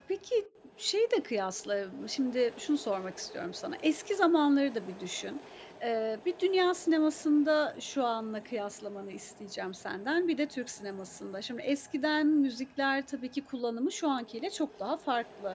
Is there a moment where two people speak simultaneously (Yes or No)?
No